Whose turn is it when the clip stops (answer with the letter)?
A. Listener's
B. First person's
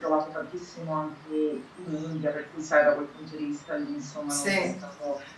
B